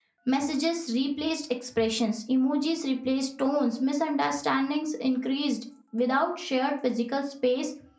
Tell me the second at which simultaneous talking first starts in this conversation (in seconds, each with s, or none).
none